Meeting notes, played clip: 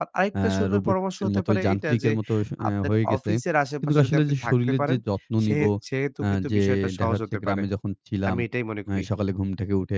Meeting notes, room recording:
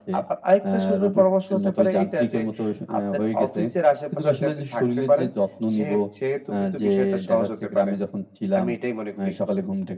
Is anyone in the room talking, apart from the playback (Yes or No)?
No